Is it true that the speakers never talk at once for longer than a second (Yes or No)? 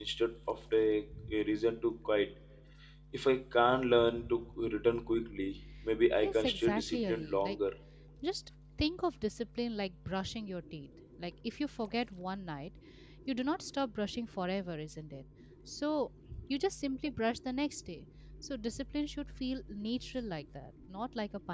No